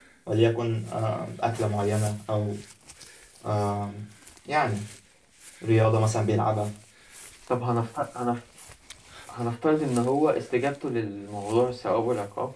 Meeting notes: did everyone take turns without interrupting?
Yes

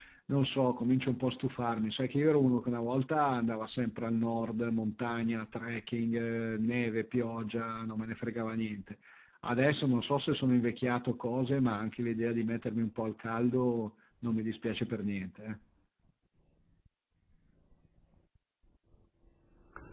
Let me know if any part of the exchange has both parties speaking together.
No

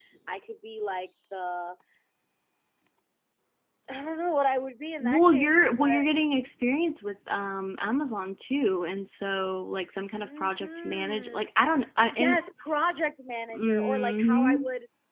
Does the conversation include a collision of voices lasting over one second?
Yes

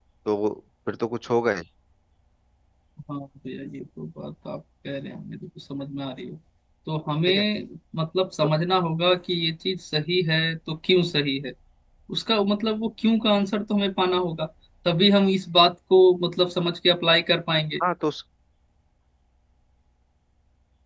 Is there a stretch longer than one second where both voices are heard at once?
No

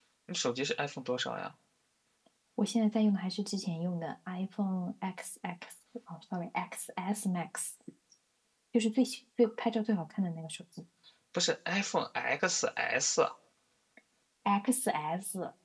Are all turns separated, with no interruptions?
Yes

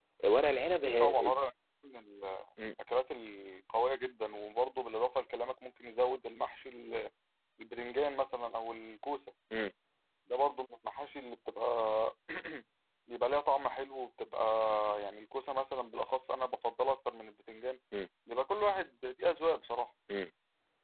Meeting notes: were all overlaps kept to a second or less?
Yes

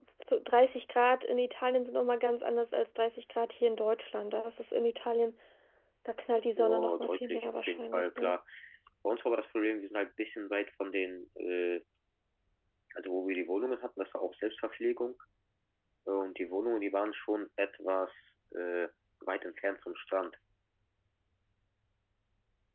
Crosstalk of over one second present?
Yes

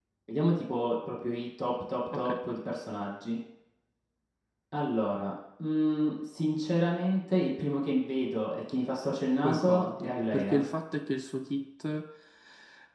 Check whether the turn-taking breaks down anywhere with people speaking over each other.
Yes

